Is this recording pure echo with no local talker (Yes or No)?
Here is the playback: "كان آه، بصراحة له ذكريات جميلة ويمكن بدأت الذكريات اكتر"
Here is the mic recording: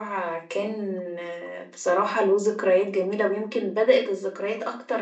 Yes